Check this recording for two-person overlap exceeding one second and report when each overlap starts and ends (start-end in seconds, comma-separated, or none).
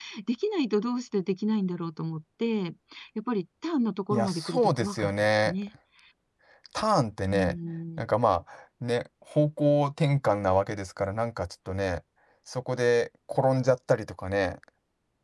4.1-5.5